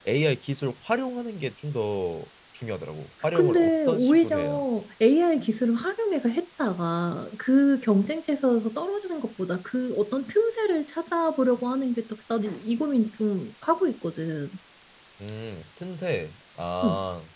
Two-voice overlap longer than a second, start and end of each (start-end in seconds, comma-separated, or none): 3.4-4.6